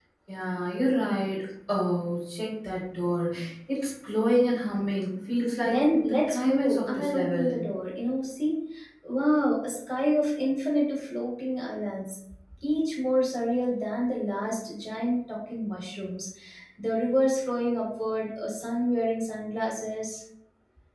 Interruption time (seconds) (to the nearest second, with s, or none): 6 s